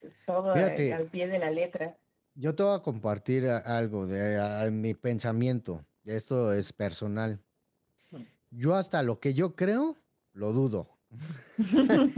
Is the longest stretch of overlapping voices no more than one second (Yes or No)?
Yes